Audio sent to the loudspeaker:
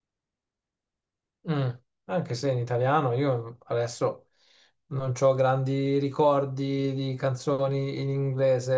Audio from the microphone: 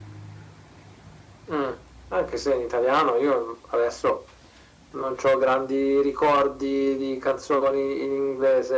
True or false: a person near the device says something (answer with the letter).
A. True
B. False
B